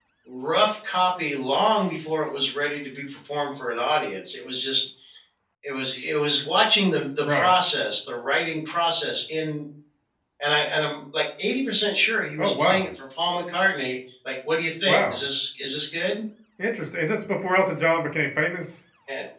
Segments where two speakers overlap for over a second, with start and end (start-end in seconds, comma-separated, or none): none